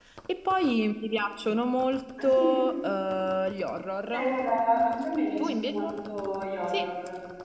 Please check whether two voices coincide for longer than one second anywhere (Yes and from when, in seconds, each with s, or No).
No